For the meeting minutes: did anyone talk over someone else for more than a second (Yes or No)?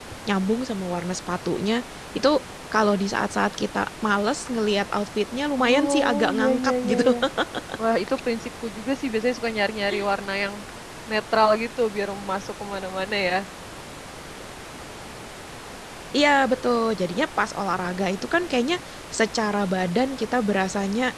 Yes